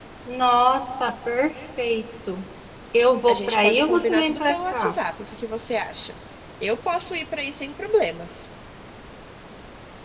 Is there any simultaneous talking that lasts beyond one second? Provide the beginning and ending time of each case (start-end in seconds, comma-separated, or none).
3.3-4.9